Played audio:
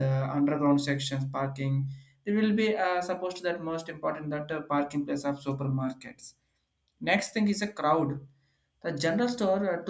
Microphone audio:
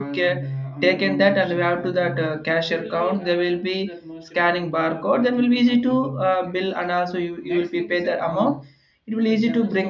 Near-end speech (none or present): present